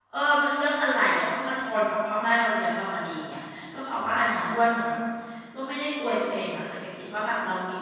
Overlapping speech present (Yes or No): No